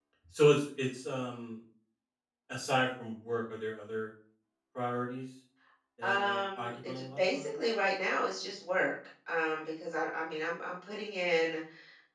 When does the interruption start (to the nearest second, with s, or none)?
6 s